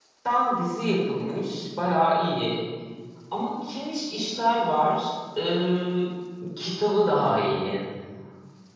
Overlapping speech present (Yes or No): No